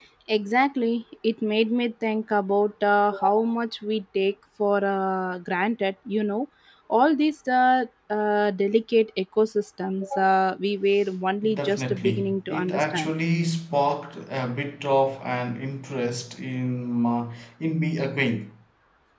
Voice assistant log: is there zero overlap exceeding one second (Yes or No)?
No